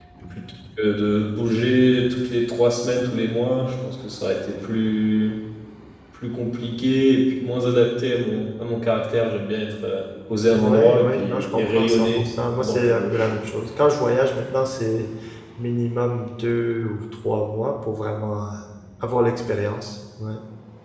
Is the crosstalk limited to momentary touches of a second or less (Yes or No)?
No